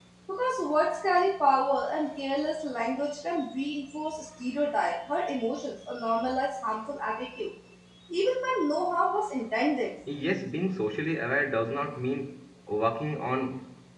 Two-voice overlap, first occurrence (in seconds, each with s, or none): none